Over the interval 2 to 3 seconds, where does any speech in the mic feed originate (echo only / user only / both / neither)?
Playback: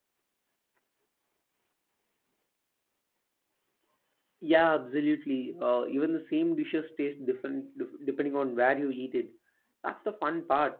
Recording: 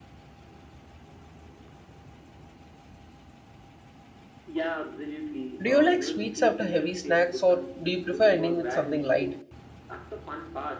neither